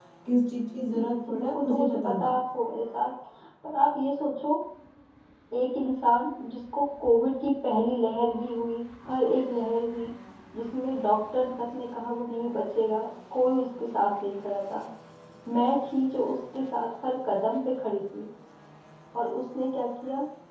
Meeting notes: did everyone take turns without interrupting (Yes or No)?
No